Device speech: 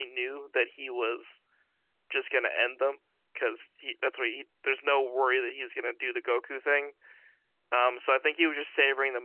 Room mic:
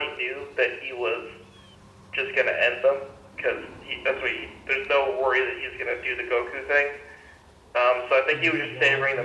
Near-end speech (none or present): present